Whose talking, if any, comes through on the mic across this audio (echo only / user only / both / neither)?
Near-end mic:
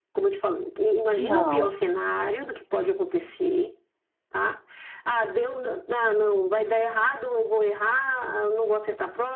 both